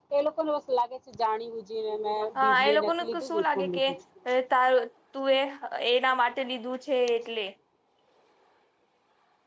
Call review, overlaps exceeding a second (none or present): present